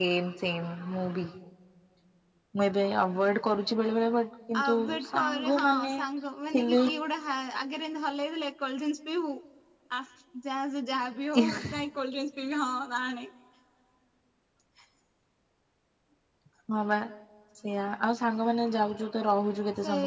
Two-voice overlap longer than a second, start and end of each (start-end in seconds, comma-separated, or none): 4.6-5.9